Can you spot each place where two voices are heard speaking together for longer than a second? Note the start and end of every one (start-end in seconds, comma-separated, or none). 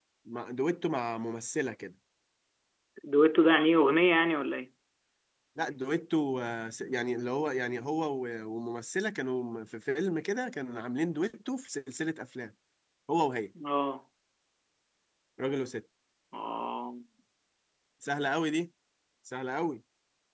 none